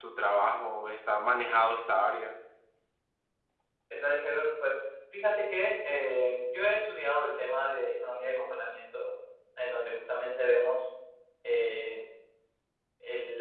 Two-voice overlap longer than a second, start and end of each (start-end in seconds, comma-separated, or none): none